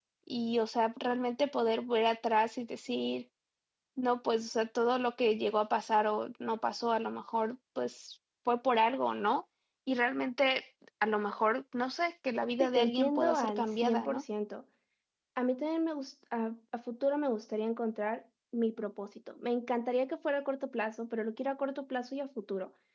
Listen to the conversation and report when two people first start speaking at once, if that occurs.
12.6 s

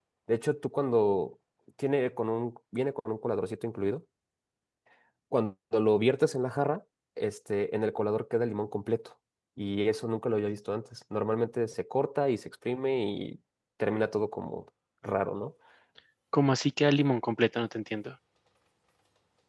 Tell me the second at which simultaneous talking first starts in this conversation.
none

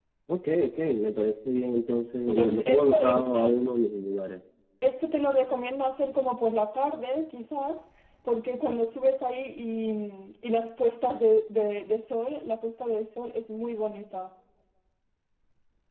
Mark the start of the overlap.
2.3 s

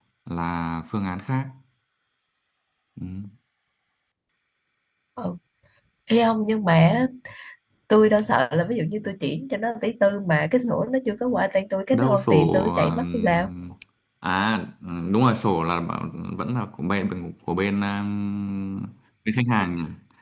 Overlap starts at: 11.9 s

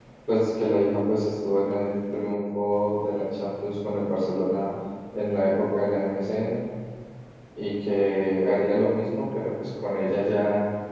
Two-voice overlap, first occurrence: none

